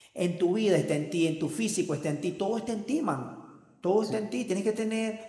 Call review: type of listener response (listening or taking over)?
listening